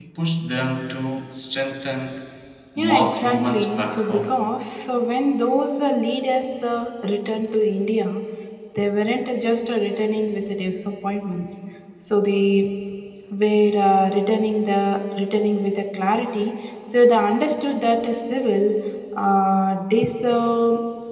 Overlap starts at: 2.8 s

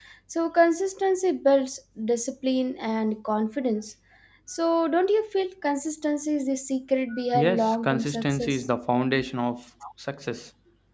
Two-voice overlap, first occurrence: 7.3 s

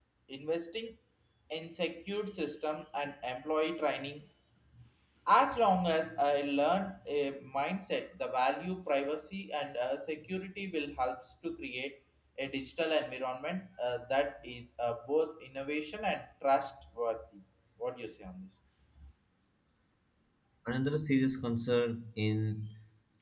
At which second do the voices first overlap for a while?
none

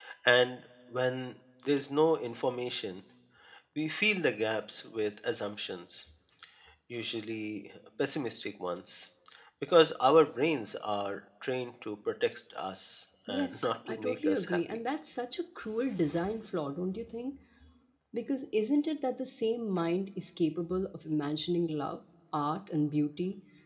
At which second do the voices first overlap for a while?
13.3 s

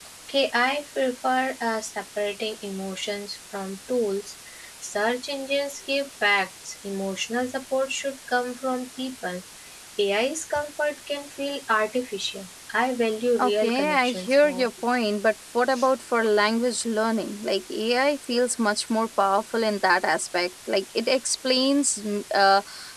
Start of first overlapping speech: 13.4 s

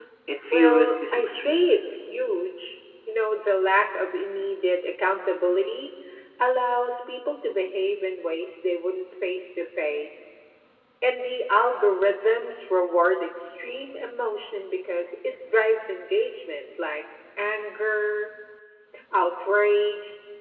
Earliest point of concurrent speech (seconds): 0.5 s

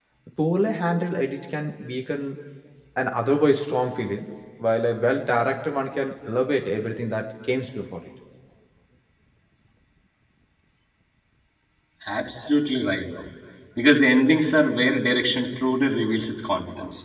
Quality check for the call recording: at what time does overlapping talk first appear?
none

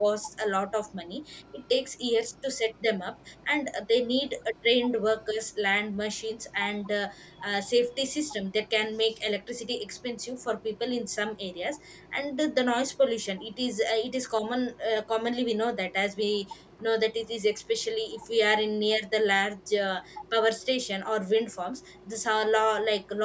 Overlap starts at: none

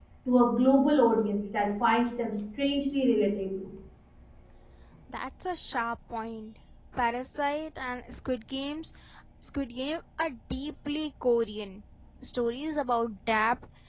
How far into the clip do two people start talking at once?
none

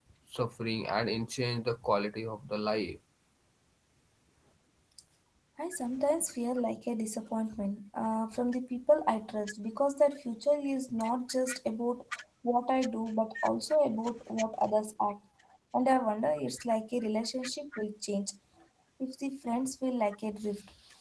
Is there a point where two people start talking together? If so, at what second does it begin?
none

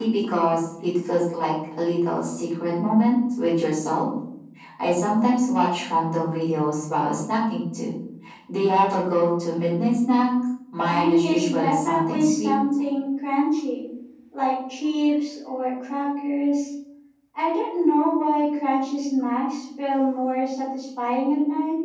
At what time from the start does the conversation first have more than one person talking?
10.9 s

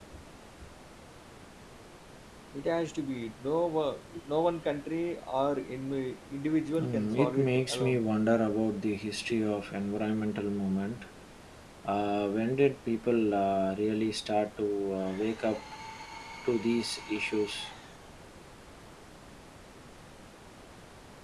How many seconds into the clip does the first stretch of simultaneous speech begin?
6.7 s

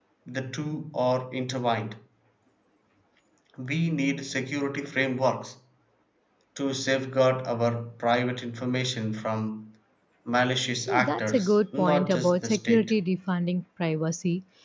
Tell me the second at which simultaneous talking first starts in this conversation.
10.9 s

